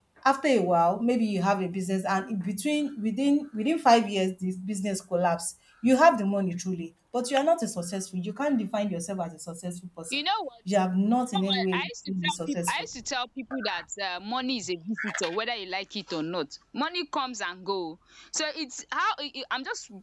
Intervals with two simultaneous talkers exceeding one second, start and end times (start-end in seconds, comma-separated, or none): 11.4-12.8